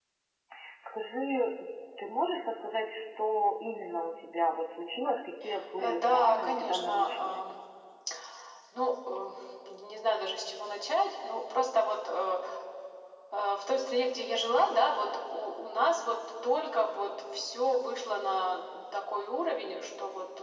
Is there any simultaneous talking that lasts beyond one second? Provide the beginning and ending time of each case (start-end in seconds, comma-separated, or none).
5.8-7.4